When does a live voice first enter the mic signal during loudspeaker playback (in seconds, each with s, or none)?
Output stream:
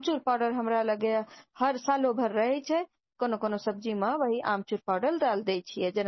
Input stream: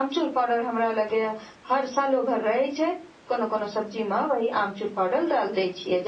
none